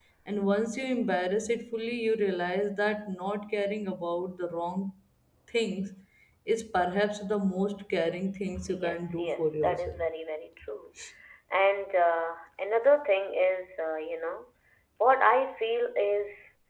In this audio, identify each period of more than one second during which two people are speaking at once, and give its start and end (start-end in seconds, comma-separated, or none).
8.7-10.0